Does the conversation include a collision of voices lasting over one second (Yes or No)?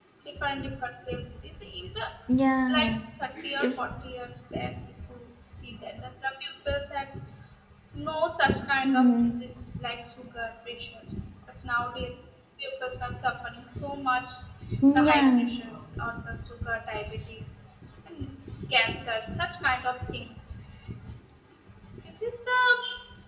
No